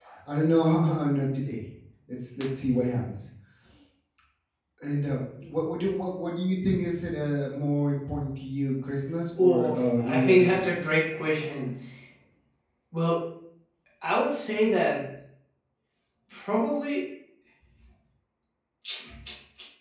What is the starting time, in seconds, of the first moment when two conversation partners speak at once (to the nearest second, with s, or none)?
9 s